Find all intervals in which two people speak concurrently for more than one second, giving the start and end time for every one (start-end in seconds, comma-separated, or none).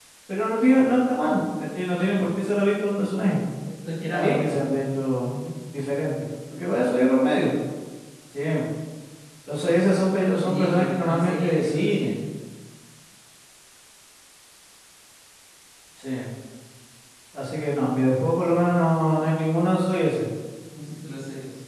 10.4-12.2